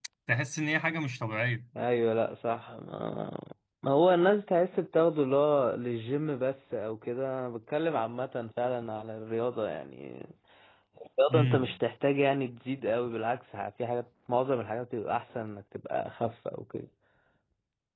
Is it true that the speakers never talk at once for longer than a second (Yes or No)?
Yes